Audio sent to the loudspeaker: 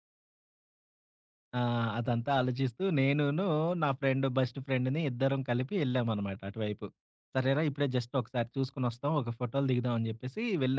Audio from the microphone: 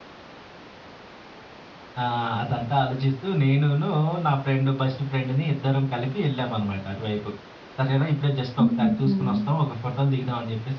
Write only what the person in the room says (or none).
హ్మ్.